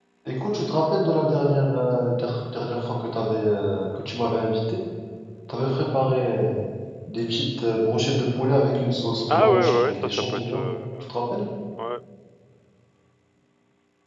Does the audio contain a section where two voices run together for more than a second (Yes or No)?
Yes